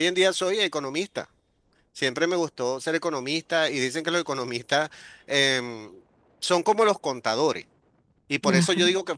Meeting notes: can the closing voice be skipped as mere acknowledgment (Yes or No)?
Yes